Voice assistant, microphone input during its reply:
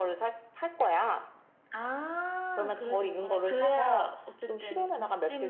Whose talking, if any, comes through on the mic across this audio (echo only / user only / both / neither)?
echo only